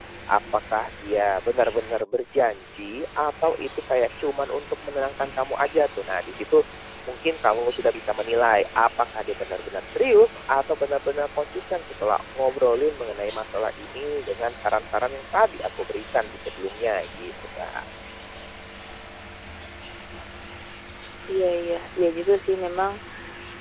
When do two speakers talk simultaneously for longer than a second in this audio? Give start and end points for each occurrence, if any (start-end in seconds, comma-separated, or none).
none